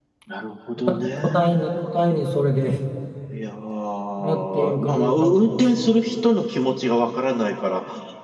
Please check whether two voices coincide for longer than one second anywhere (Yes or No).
Yes